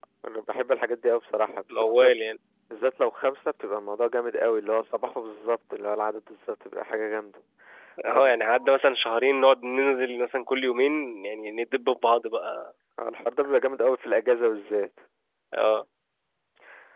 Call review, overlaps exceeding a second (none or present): none